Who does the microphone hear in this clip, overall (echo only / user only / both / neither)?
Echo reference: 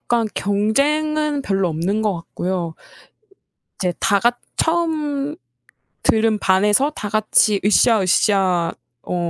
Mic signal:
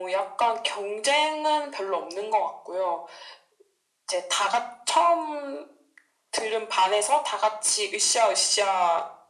echo only